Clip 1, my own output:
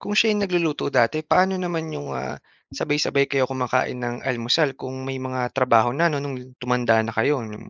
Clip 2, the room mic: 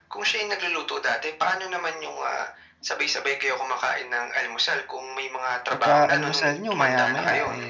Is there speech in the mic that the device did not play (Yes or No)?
Yes